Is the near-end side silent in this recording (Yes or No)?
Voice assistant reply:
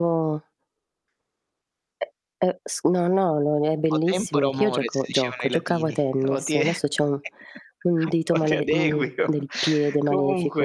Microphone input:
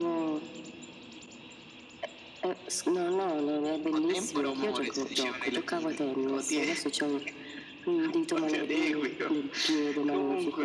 Yes